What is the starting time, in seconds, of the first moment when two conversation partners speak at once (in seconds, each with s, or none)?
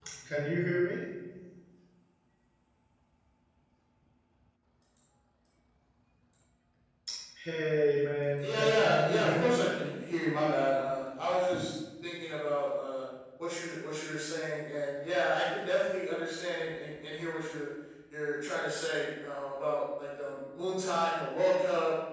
8.4 s